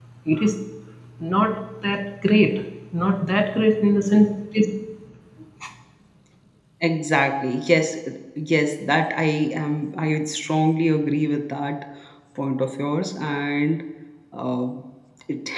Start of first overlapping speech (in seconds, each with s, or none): none